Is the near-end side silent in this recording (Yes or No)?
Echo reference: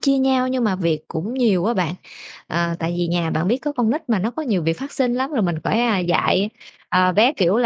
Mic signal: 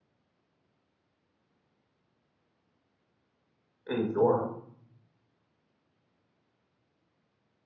No